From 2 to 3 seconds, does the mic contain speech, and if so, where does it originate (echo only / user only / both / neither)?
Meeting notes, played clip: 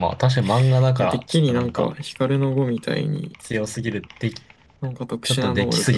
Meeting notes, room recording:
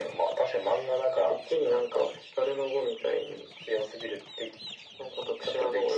echo only